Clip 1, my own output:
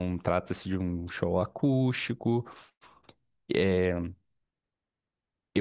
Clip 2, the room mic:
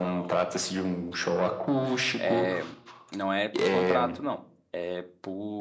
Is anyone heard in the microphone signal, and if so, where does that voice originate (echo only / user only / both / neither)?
both